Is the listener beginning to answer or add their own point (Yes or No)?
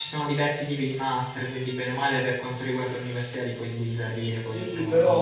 Yes